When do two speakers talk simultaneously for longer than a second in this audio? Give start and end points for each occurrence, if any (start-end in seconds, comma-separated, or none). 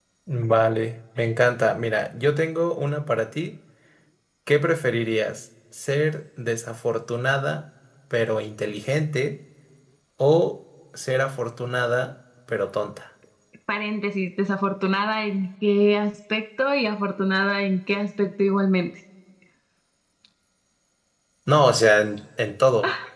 none